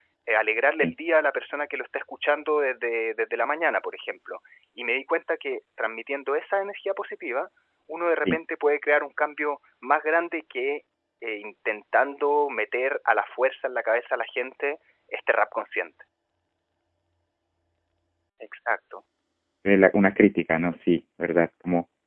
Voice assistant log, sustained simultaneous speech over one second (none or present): none